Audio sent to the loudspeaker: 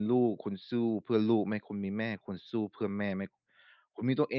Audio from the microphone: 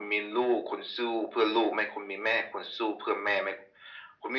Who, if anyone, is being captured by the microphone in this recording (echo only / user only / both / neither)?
echo only